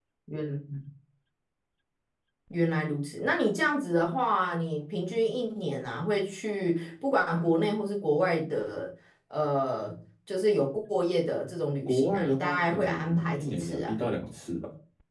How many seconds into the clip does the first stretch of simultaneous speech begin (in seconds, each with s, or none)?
11.8 s